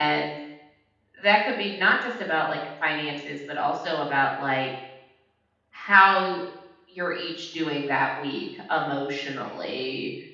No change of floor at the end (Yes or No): Yes